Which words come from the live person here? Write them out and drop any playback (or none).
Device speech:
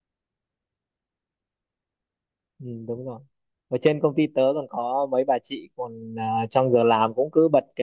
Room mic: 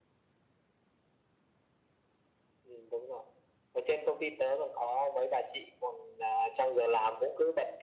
none